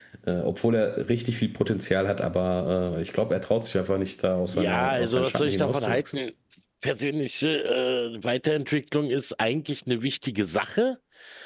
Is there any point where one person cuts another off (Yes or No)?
Yes